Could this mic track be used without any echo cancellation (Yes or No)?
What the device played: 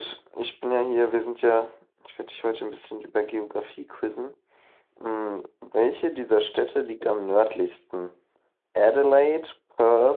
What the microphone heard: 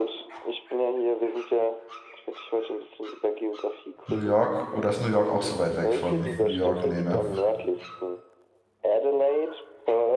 No